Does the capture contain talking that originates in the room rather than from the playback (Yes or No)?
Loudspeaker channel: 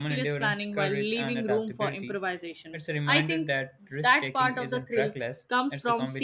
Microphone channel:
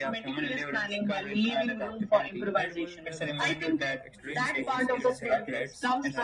Yes